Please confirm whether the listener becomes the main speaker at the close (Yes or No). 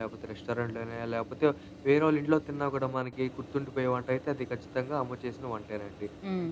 No